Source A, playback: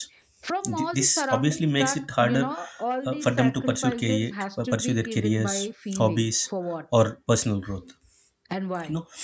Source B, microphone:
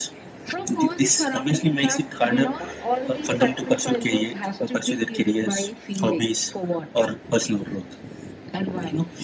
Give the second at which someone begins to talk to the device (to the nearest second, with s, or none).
none